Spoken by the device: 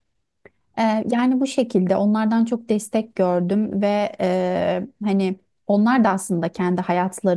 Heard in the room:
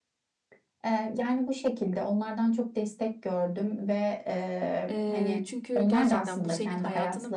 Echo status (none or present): present